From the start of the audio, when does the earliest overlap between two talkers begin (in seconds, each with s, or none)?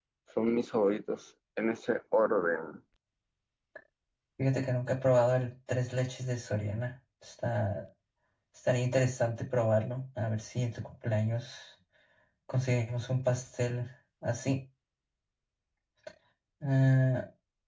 none